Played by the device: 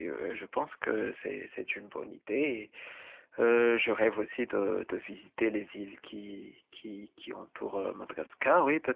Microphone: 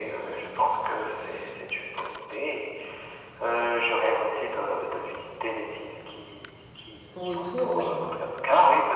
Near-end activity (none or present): present